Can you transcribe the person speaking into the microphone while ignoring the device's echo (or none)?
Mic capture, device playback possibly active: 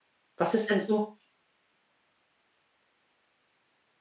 Was ist denn so